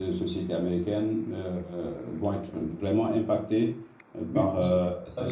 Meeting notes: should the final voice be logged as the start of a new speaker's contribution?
Yes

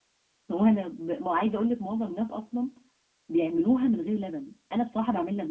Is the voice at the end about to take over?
Yes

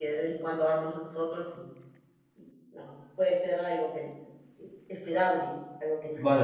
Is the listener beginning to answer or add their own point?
Yes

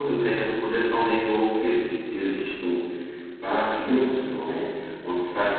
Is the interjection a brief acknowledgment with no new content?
Yes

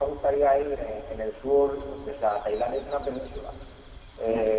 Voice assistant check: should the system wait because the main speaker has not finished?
Yes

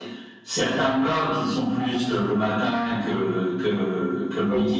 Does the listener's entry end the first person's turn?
Yes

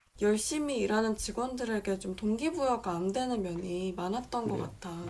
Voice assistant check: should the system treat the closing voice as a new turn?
Yes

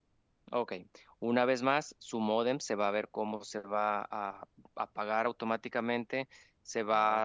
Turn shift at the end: No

